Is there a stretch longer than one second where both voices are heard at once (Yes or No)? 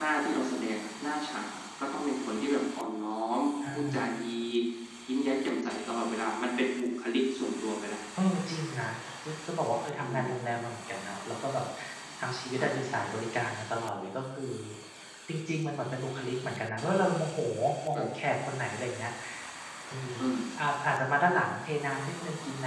No